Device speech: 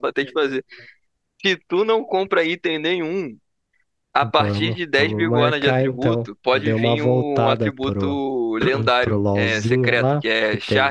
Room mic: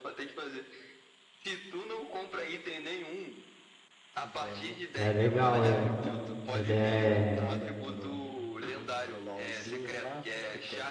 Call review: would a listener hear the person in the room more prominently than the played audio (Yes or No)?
Yes